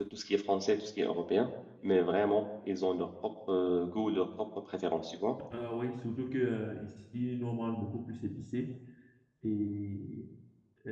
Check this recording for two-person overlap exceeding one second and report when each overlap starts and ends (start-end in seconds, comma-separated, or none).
none